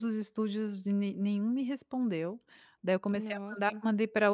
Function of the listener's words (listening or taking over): listening